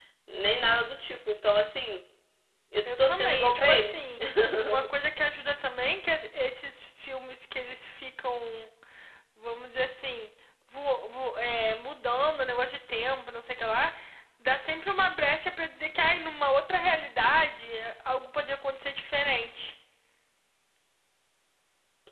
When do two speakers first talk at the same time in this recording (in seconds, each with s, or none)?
2.8 s